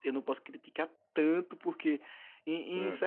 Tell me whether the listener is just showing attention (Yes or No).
Yes